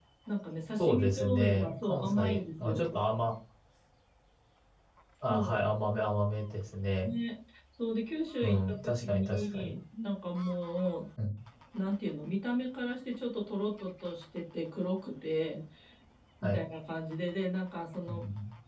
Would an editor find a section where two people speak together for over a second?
Yes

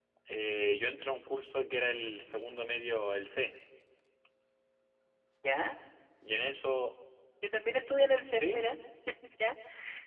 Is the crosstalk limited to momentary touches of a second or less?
Yes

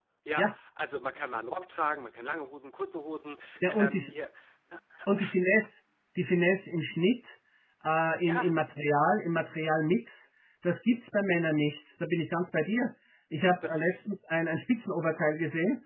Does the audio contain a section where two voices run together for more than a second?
No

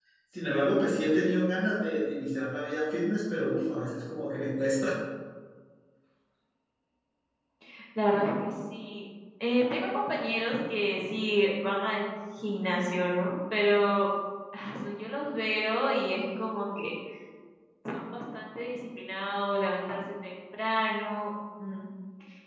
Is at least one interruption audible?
No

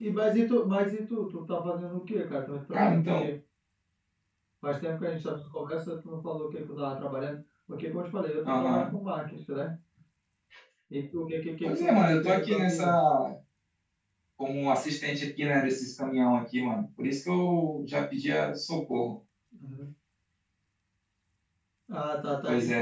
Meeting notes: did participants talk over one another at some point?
Yes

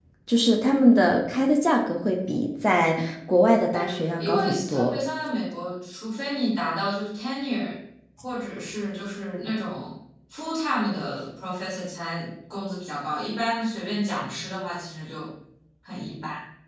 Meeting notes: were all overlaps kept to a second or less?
No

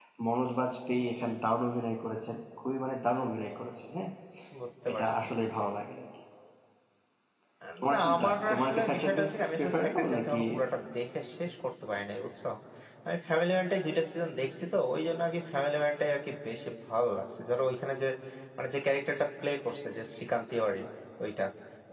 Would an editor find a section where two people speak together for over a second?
Yes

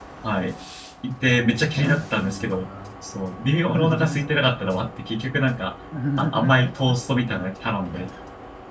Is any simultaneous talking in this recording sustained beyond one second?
Yes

